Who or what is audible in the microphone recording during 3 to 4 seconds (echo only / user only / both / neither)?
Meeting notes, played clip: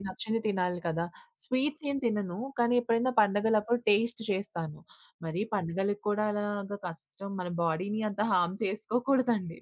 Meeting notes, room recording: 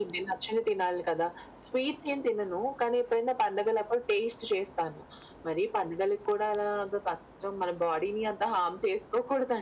echo only